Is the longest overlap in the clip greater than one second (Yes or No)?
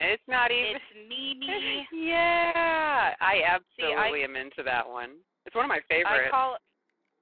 No